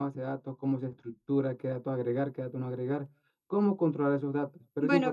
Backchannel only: No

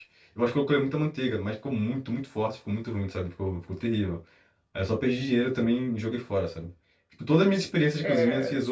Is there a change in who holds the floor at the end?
No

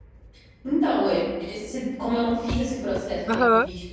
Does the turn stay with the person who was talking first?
Yes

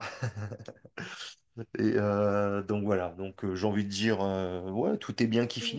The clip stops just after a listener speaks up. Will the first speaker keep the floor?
Yes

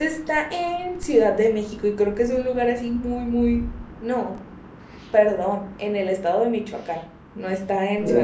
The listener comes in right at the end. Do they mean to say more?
No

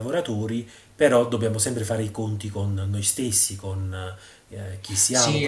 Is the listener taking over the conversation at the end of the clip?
Yes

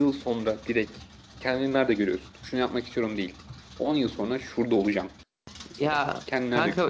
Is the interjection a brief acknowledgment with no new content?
No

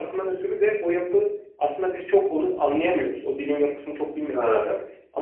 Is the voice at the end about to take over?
No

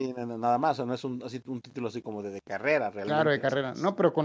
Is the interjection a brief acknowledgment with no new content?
No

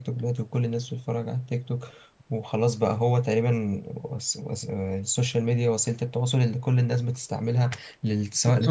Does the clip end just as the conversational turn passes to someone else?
Yes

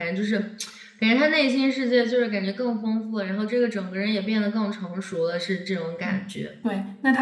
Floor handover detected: Yes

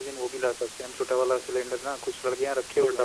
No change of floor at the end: Yes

